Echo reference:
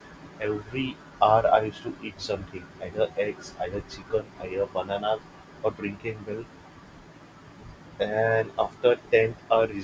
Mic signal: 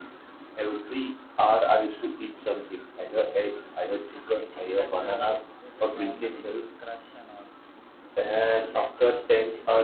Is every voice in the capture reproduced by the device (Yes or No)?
No